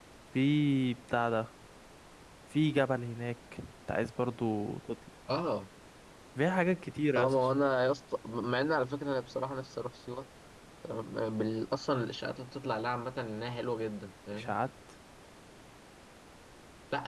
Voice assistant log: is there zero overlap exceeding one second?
Yes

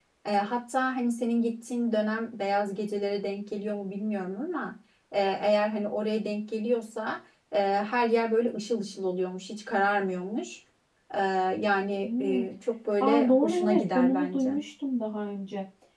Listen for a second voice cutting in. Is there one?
Yes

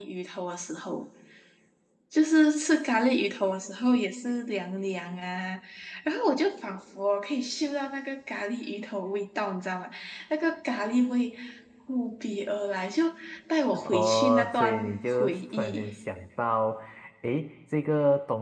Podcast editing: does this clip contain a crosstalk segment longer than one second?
Yes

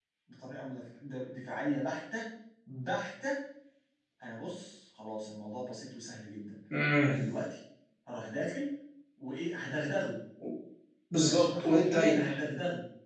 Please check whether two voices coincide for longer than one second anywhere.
Yes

